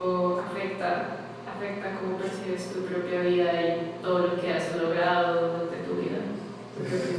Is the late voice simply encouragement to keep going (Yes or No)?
No